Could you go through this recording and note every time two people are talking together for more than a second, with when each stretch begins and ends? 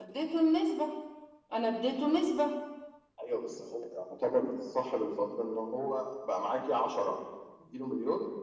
none

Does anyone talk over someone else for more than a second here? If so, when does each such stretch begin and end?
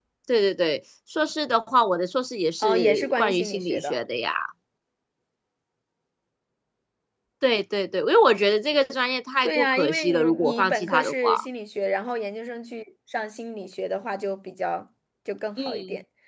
2.6-4.0, 9.4-11.4

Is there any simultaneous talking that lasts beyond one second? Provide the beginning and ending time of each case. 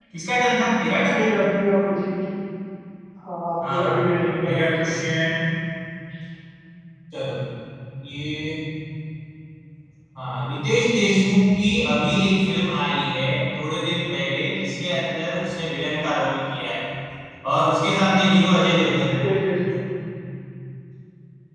3.6-4.9

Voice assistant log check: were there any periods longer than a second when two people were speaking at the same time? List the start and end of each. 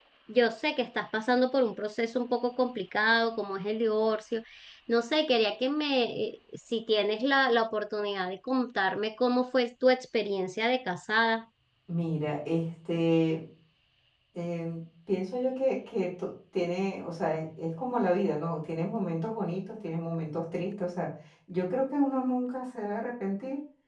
none

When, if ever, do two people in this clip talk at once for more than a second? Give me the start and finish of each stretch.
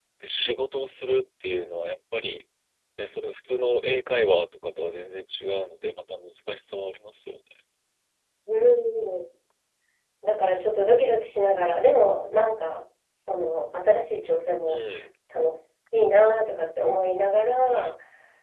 none

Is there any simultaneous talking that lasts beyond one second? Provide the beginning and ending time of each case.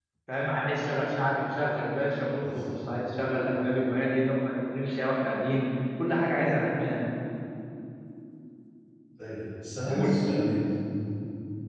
none

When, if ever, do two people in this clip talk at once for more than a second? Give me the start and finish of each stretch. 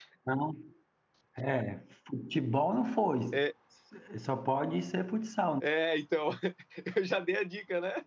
none

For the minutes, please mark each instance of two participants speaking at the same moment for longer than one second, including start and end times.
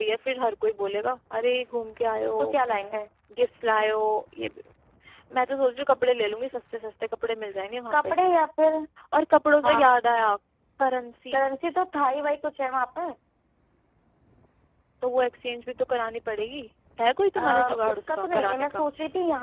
17.4-18.9

